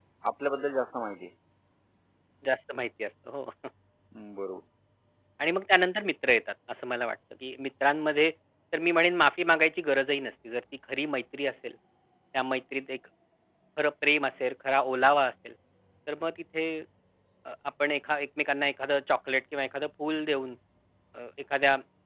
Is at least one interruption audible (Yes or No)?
No